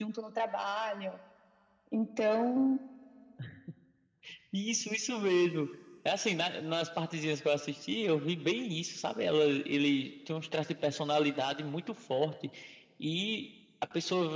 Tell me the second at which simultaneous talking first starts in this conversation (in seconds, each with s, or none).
none